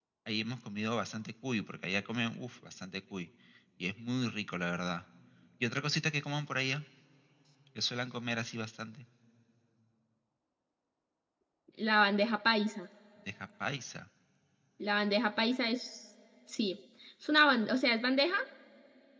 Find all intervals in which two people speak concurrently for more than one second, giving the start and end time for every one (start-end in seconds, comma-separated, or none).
none